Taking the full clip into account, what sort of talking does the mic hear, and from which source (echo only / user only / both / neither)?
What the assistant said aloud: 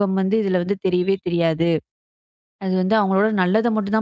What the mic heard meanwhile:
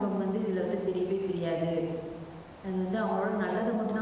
echo only